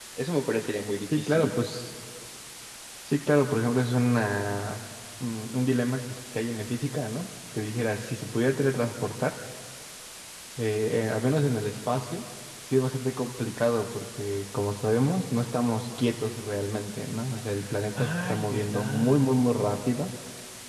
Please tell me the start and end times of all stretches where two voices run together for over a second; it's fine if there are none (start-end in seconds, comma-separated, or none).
18.0-19.3